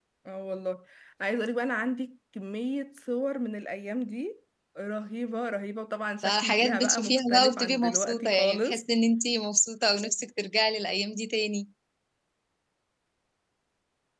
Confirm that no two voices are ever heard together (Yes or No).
No